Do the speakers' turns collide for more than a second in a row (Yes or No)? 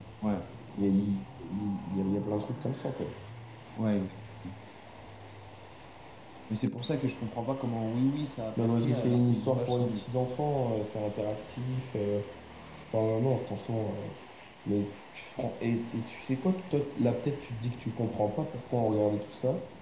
Yes